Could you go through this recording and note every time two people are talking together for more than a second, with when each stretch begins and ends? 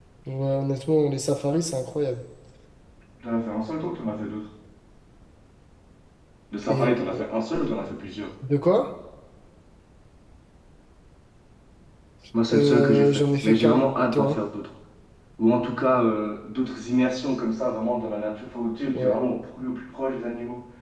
12.5-14.4

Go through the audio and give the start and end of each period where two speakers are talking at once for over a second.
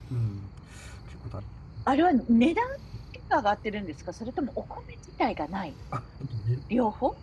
none

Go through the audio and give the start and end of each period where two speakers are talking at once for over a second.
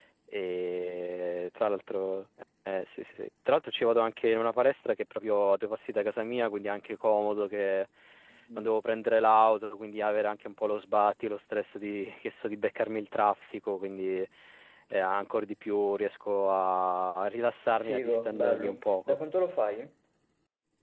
17.8-19.2

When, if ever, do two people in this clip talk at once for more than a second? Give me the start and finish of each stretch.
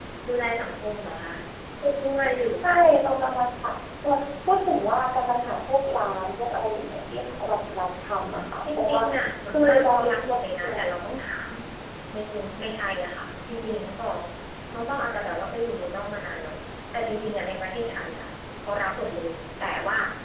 9.5-10.8

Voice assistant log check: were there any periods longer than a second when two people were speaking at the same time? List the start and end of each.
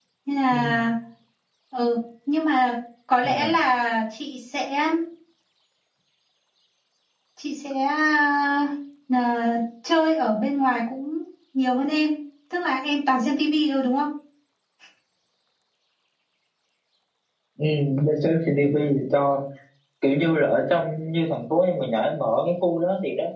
none

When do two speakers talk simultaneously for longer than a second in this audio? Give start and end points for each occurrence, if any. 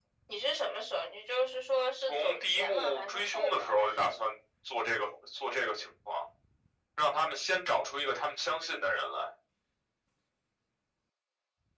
2.0-4.2

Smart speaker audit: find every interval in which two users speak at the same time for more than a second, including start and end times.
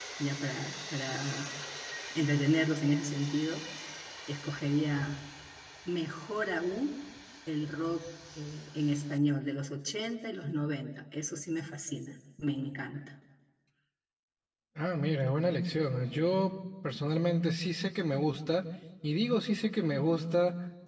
none

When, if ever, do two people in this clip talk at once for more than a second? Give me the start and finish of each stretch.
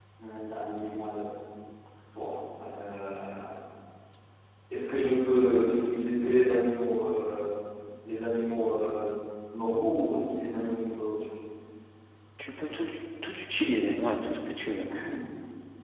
none

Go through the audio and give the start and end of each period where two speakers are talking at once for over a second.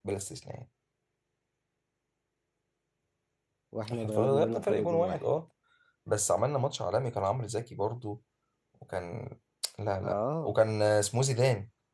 3.9-5.2

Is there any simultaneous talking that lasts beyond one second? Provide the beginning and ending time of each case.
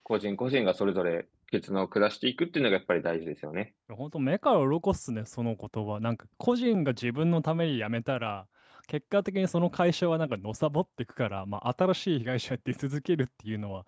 none

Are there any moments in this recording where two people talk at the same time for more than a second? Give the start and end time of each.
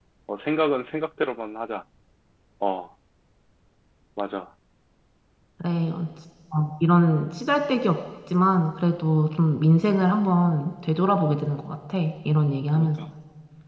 none

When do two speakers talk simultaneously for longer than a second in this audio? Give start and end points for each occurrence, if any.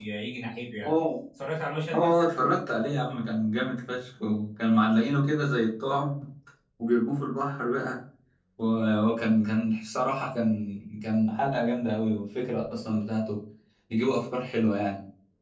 none

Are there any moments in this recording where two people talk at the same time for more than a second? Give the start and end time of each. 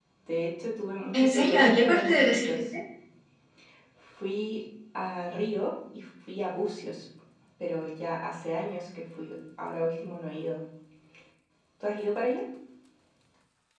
1.1-2.5

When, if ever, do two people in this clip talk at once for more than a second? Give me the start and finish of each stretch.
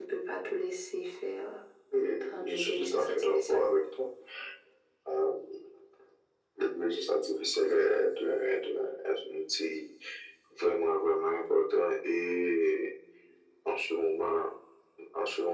2.3-3.7

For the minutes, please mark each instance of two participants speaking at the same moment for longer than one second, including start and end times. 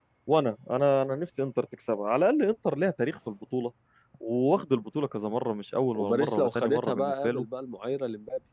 6.0-7.5

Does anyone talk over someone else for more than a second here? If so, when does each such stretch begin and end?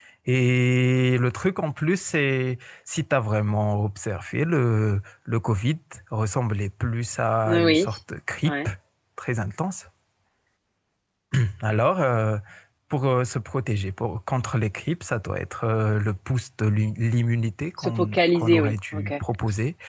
17.8-19.1

